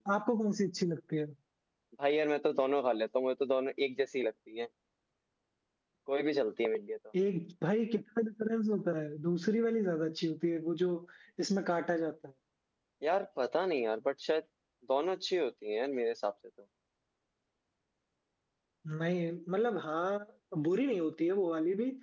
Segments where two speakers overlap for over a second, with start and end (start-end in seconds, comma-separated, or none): none